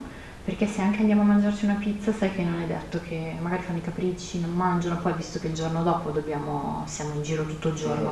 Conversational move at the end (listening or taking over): taking over